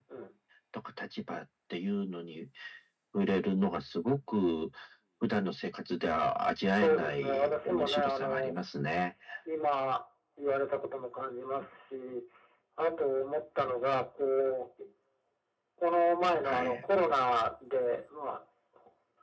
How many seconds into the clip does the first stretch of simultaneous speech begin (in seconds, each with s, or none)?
6.8 s